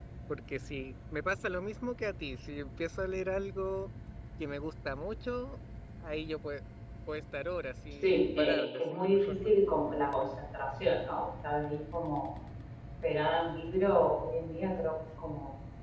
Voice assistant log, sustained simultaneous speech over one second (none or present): present